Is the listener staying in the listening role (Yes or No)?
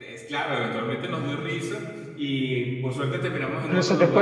No